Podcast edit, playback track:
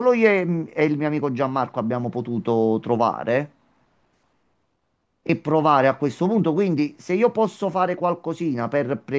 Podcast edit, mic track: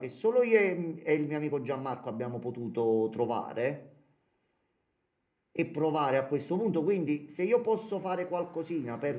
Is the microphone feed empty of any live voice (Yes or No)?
Yes